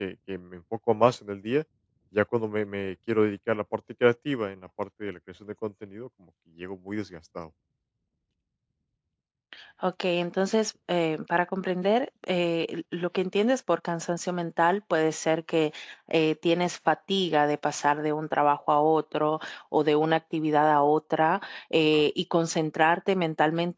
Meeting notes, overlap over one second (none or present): none